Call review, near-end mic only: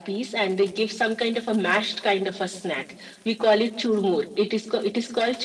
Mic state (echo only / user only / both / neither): echo only